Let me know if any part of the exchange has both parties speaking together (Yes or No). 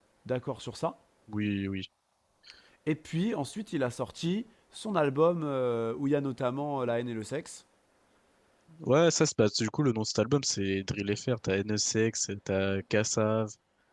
No